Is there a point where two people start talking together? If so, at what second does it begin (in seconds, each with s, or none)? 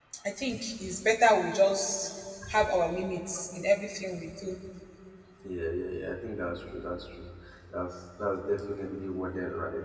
none